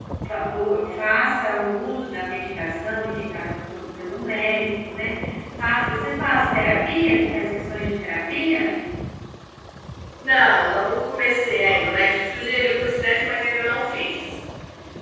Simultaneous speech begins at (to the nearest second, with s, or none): none